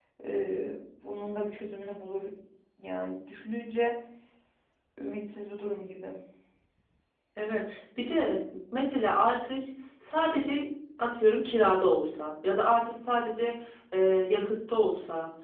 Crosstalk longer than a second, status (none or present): none